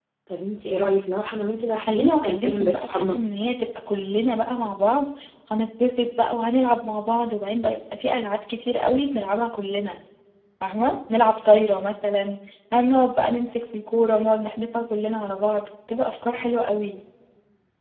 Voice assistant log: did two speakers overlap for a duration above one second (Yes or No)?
Yes